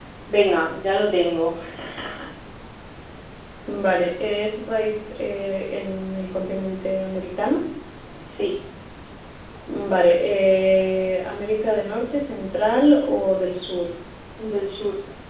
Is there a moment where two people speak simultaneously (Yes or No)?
No